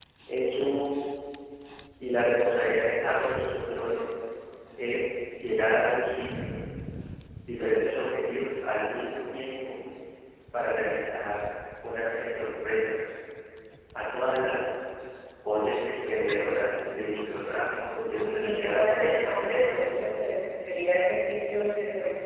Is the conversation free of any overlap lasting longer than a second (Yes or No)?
No